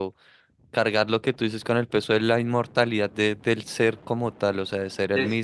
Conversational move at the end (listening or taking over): taking over